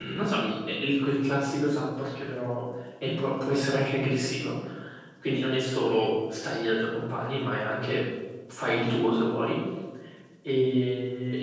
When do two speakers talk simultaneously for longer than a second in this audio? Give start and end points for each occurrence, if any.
none

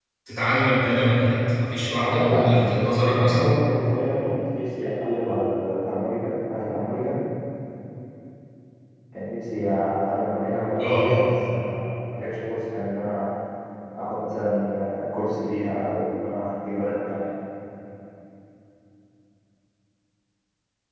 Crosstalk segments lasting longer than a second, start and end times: 1.8-3.5

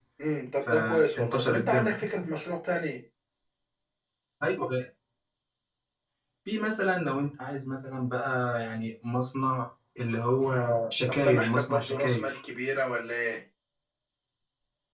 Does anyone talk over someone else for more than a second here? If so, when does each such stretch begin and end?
0.6-1.9, 11.1-12.4

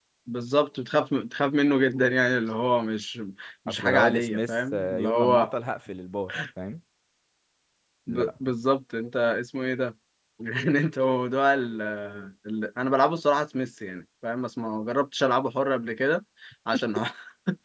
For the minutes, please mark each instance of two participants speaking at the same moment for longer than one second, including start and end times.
3.7-5.5

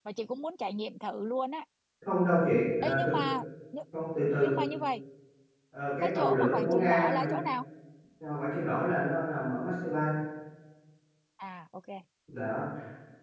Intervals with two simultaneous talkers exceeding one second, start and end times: 6.0-7.3

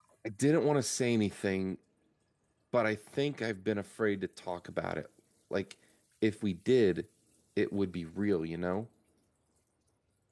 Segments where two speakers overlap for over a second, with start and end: none

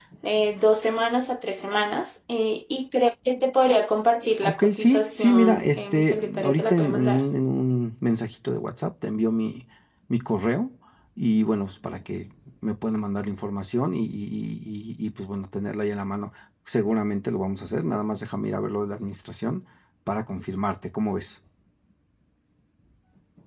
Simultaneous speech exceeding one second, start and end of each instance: 4.4-7.2

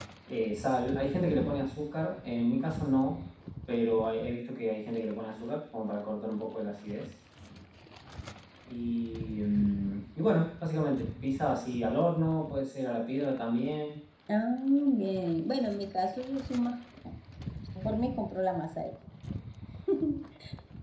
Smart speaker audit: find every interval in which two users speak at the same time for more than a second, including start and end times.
none

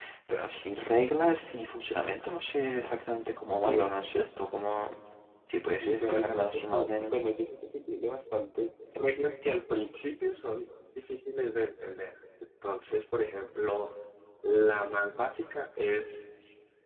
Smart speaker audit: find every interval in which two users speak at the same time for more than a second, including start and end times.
5.8-7.2

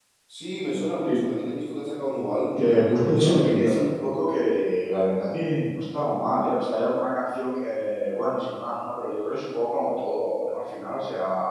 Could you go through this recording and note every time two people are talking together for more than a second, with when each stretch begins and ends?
2.6-4.1

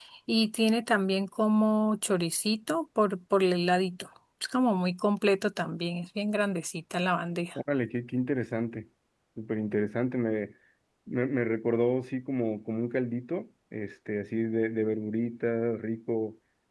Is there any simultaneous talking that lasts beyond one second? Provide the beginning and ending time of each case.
none

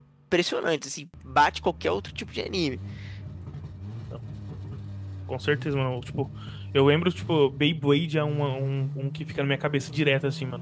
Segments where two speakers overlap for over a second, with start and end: none

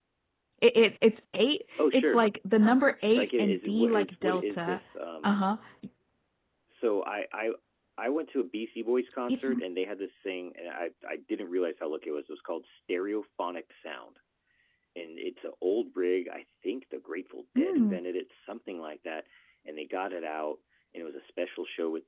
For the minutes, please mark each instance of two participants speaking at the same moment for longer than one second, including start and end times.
3.0-4.8

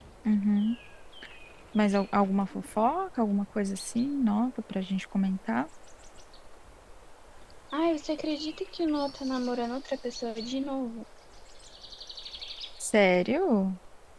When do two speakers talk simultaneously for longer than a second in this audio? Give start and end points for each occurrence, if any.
none

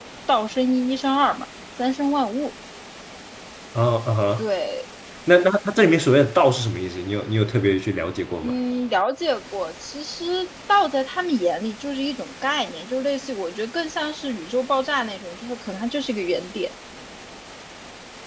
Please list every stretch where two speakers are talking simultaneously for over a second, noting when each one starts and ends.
none

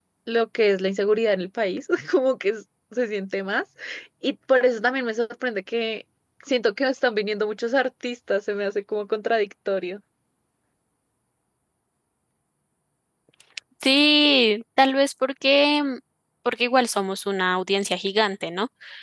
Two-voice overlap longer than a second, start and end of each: none

